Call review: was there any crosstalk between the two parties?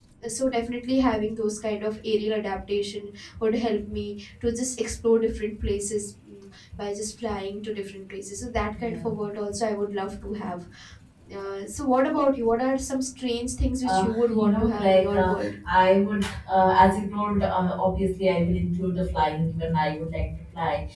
Yes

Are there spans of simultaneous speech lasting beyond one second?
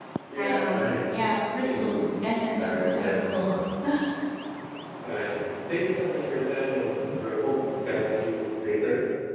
Yes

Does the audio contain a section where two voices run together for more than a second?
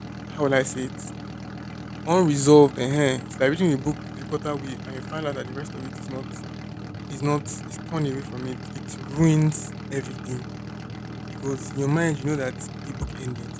No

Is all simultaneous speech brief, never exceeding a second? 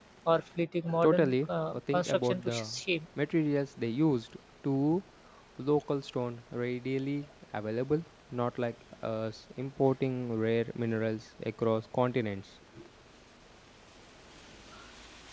No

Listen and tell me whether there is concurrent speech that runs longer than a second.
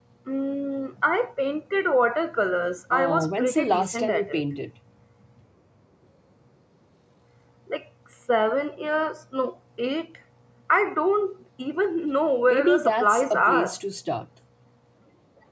Yes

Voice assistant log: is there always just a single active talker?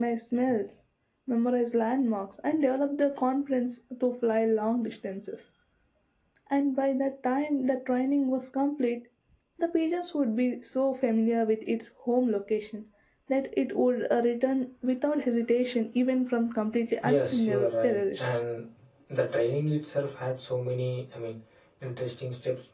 No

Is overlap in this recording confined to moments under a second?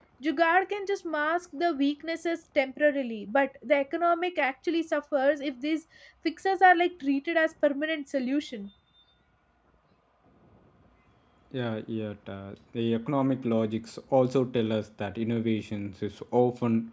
Yes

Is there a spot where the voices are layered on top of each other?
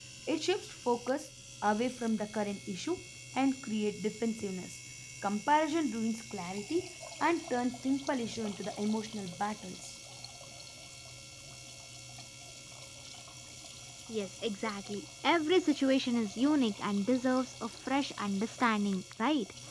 No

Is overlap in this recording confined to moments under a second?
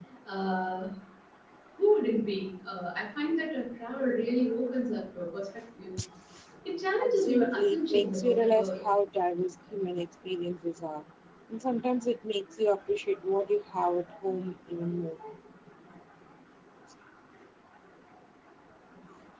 No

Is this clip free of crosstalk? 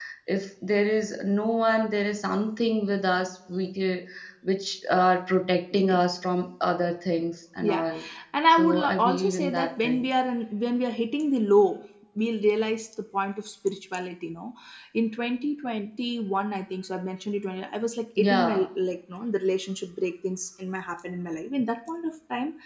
No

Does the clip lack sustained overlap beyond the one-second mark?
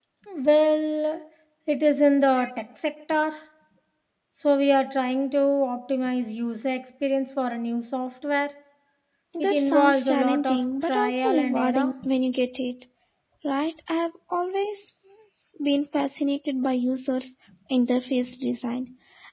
No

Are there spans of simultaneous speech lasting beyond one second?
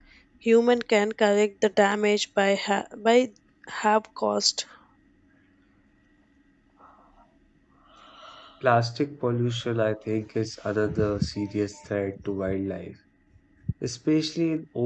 No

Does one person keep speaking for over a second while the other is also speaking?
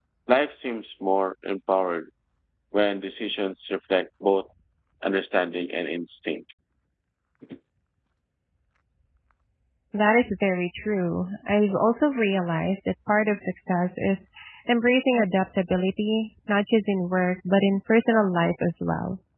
No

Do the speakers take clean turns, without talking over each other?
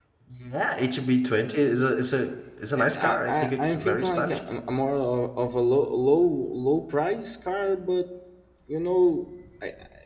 No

